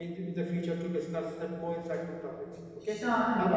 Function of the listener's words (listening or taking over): taking over